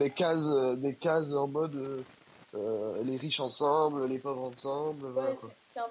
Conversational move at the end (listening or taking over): taking over